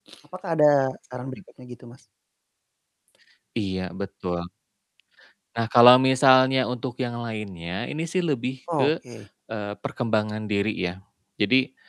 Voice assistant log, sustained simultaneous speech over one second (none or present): none